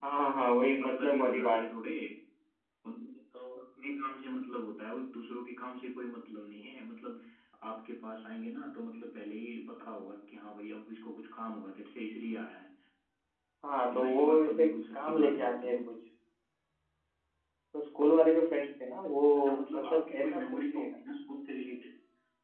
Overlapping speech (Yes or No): Yes